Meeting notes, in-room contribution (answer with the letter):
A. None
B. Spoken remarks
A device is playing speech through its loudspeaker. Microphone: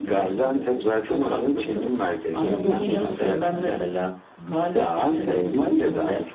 B